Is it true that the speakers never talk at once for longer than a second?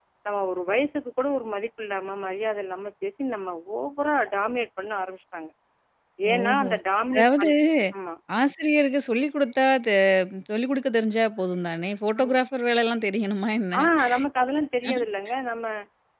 Yes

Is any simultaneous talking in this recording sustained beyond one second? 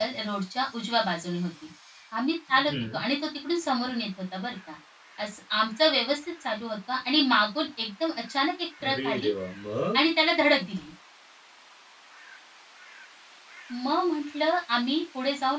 No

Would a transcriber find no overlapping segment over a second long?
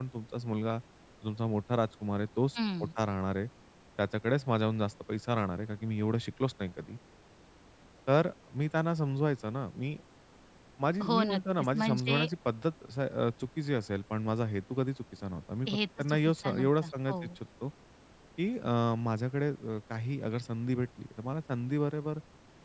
No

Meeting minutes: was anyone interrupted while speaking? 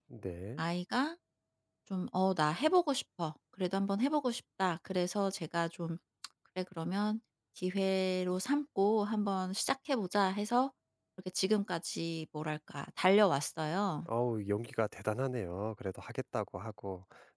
No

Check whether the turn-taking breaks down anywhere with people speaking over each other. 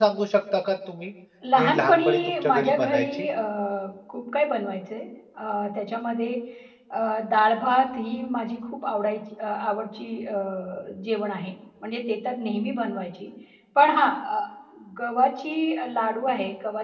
Yes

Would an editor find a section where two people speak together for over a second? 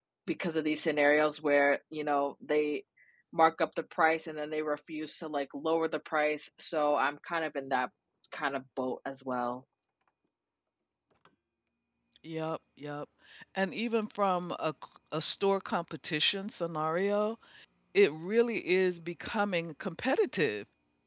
No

